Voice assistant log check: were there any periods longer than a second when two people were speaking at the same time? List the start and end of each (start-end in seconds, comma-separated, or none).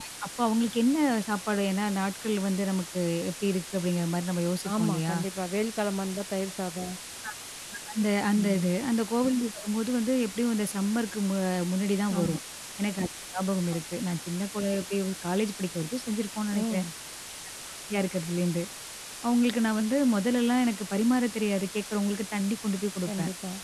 none